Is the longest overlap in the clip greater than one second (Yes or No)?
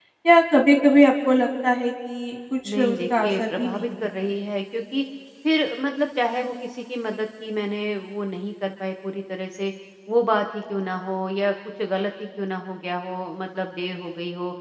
Yes